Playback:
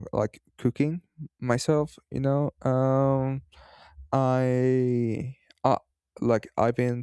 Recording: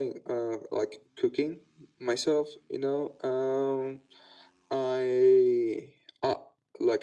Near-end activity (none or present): none